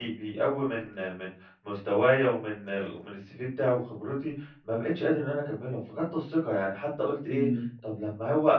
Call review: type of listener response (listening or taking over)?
listening